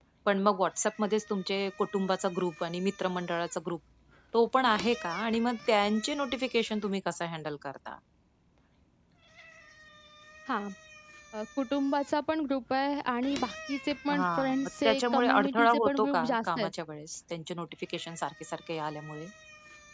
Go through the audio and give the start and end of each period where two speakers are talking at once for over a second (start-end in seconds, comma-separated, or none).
14.1-16.7